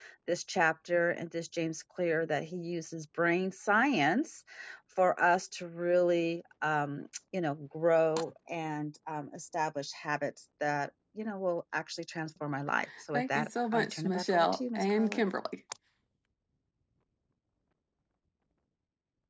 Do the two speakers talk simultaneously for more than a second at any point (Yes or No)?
Yes